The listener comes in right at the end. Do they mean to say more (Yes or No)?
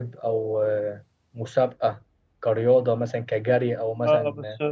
Yes